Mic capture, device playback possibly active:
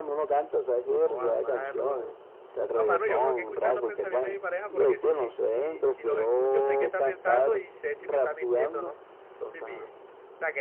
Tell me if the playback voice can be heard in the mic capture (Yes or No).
Yes